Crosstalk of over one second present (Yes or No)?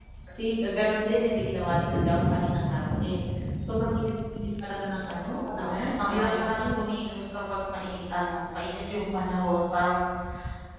Yes